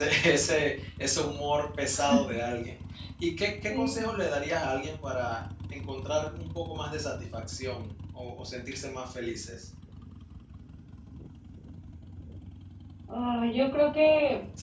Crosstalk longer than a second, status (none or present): none